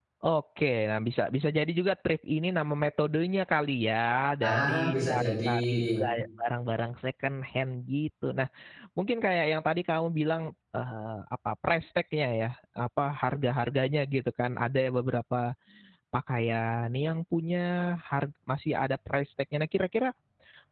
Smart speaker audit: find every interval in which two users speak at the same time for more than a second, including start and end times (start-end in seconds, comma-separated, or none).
4.4-6.0